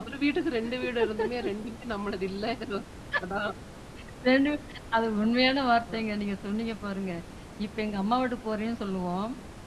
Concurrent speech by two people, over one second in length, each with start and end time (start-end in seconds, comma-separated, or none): none